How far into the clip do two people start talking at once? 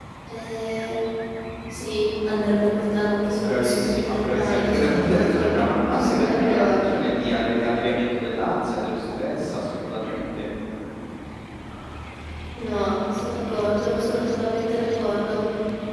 3.2 s

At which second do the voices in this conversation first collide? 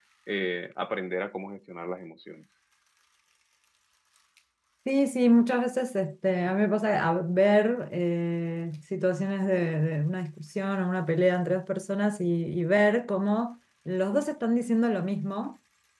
none

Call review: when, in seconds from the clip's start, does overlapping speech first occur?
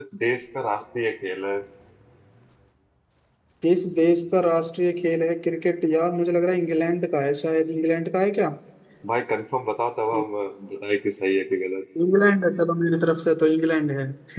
none

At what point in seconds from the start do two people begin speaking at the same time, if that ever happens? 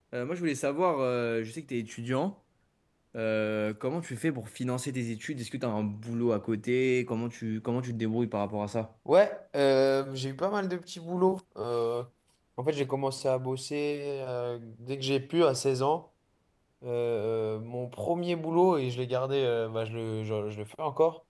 none

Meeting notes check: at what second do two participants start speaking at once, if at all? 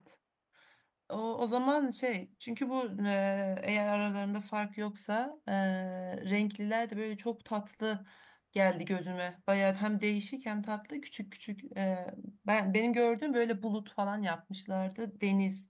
none

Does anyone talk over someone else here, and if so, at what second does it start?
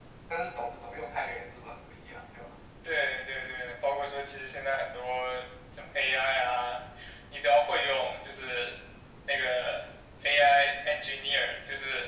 none

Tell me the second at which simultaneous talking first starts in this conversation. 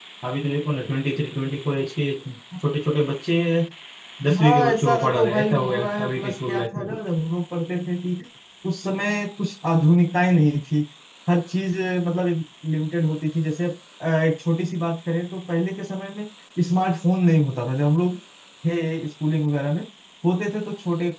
4.4 s

